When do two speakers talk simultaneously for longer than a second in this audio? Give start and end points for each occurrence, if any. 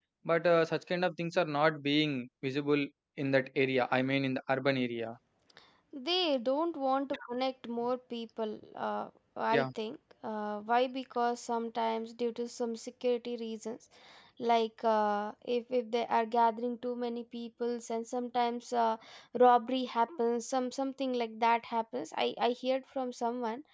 none

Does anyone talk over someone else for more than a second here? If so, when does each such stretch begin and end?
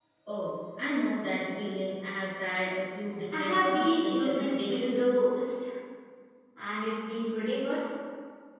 3.4-5.1

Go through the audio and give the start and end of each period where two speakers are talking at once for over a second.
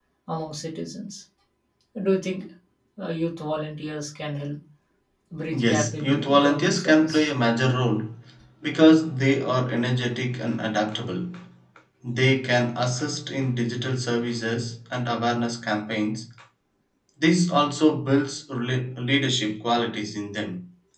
5.5-7.3

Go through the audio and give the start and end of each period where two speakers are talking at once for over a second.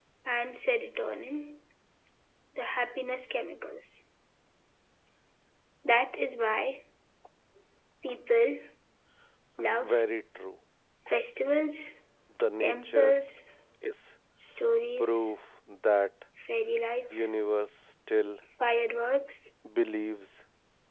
none

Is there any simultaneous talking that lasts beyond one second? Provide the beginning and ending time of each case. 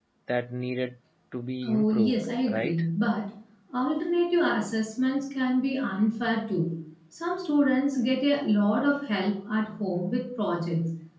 1.6-2.8

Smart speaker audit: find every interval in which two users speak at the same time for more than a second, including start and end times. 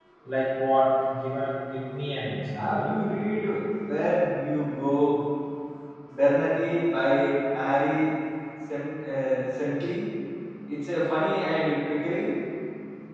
none

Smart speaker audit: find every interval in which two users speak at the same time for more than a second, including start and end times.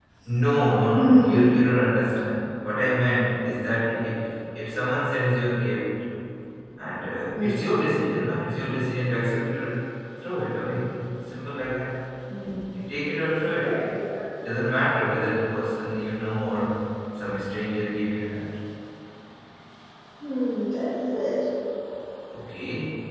none

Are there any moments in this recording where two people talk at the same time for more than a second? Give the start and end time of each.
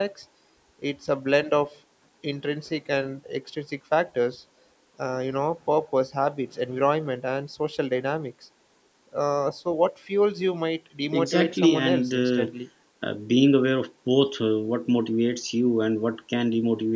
11.1-12.5

